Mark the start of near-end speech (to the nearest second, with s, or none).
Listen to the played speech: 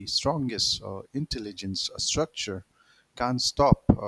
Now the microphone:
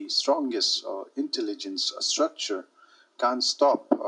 none